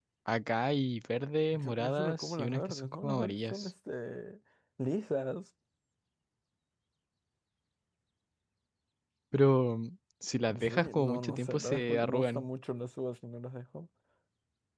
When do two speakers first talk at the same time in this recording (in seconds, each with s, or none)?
1.5 s